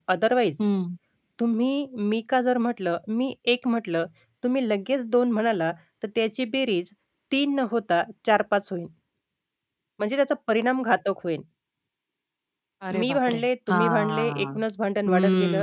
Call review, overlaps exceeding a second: present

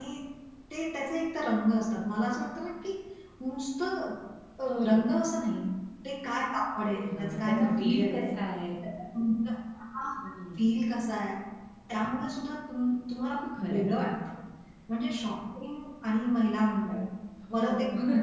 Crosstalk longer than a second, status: present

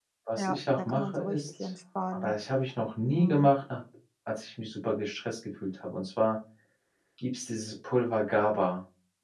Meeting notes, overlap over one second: present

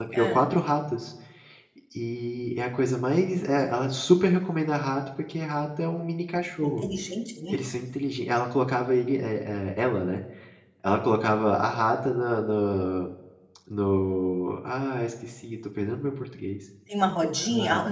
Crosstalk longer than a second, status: none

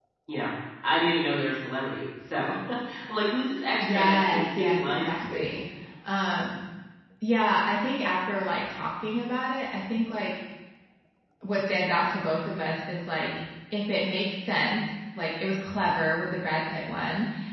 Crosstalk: present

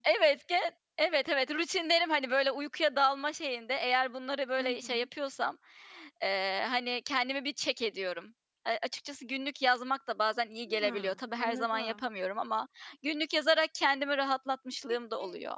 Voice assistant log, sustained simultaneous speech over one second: present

